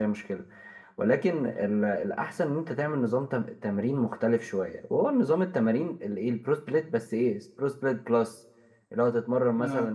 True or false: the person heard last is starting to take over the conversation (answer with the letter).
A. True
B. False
B